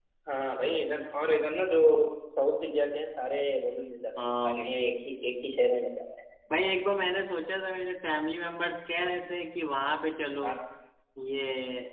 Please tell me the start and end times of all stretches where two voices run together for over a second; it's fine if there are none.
none

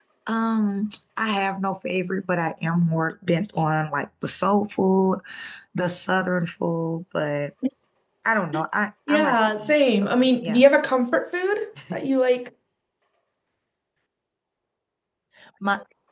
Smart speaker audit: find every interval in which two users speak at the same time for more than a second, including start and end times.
9.1-10.6

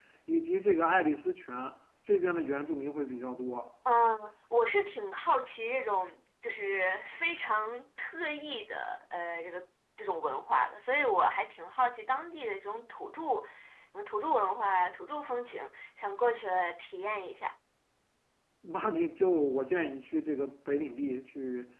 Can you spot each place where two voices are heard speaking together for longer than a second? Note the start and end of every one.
none

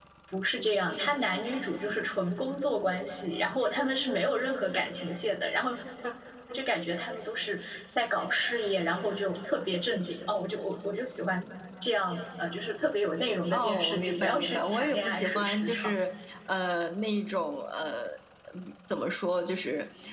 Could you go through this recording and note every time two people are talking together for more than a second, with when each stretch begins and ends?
13.5-16.0

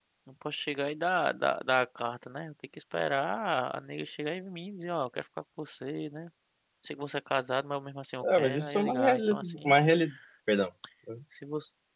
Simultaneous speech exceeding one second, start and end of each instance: 8.2-9.7

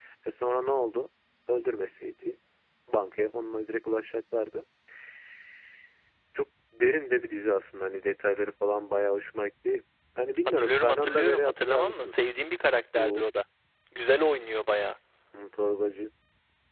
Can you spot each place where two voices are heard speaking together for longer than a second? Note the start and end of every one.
10.6-12.1

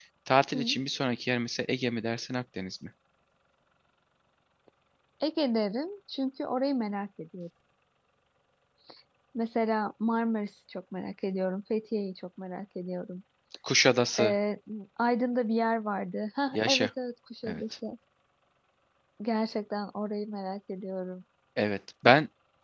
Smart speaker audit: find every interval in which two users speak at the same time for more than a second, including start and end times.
none

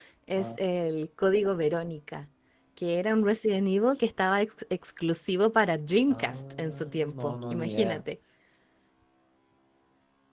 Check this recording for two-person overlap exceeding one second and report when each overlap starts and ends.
6.1-8.0

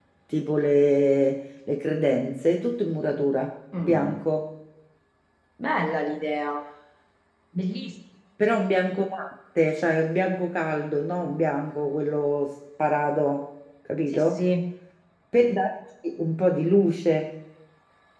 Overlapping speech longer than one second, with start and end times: none

